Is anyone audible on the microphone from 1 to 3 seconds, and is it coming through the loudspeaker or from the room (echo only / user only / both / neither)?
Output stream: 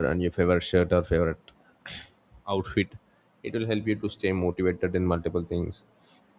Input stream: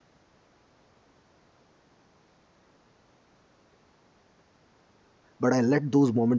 neither